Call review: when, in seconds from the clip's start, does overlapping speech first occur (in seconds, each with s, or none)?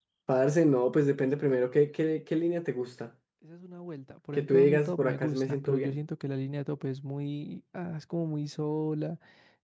4.3 s